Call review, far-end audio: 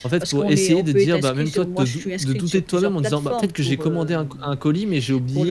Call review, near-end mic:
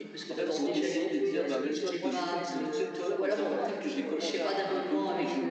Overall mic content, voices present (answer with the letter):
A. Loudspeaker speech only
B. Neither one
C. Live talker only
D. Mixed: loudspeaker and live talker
D